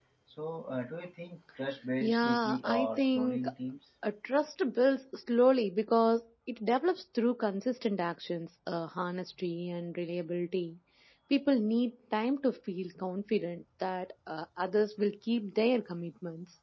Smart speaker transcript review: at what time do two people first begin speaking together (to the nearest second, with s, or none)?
2 s